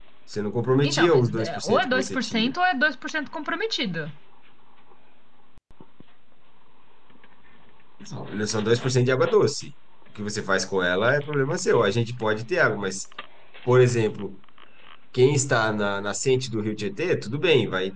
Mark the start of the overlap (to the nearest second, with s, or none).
1 s